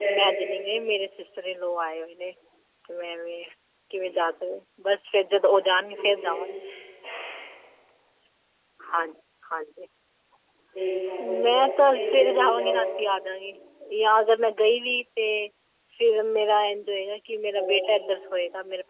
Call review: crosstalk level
present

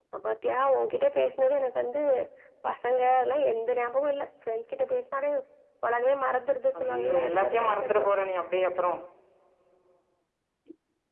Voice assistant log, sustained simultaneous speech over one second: present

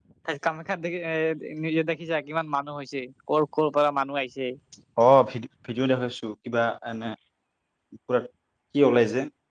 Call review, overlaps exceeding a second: none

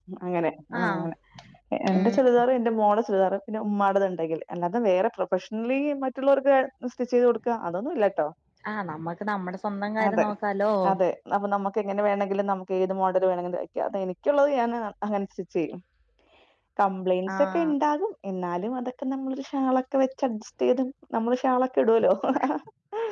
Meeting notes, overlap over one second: none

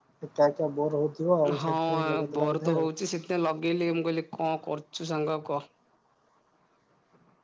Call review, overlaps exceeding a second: present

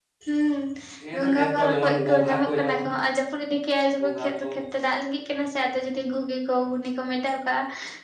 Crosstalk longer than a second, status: present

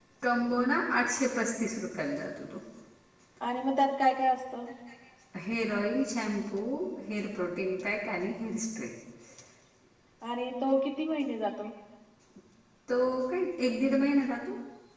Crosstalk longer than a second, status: none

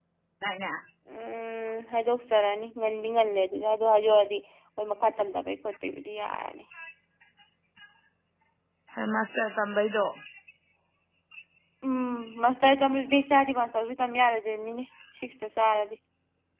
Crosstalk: none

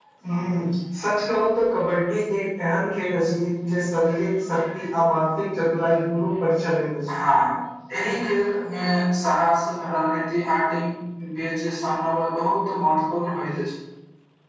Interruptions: none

